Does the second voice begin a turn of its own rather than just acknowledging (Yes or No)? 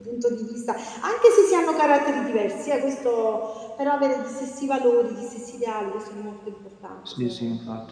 Yes